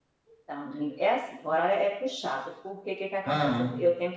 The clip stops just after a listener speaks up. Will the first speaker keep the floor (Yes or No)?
Yes